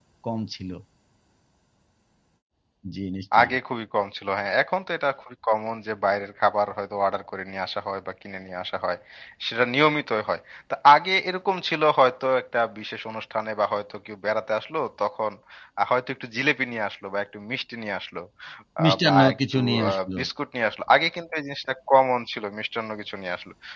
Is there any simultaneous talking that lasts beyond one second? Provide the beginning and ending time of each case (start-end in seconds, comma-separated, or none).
18.8-20.2